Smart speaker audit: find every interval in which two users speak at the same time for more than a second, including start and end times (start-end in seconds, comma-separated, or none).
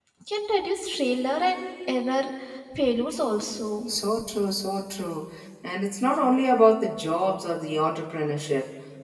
none